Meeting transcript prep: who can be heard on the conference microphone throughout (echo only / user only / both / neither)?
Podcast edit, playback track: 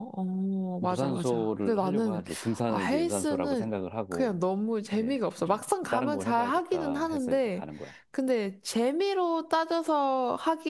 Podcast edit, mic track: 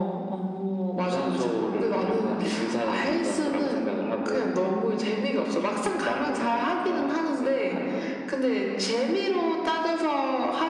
echo only